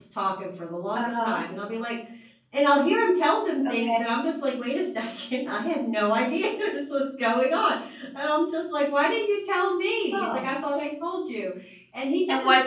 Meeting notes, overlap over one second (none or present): none